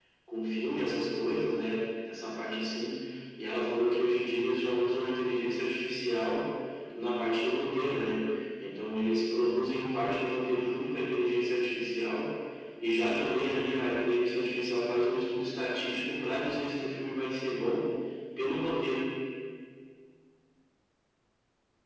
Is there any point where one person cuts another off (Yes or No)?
No